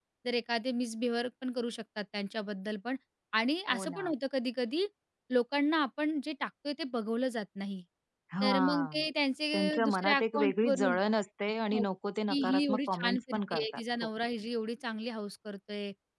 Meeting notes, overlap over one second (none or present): present